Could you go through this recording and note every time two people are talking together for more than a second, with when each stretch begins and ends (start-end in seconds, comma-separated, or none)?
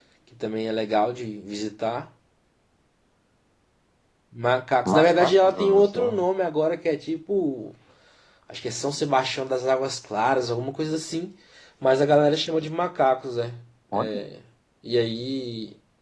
4.8-6.2